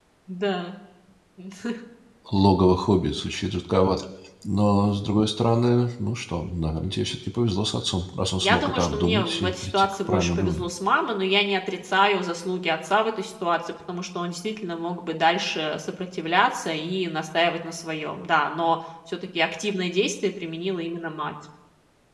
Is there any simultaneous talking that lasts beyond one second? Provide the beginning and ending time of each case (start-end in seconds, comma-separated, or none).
8.4-10.7